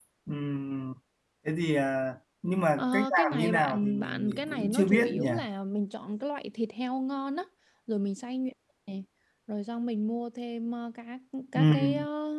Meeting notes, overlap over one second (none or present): present